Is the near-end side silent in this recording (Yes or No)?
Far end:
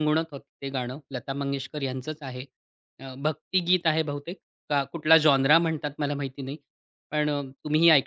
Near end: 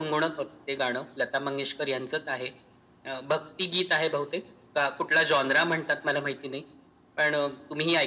Yes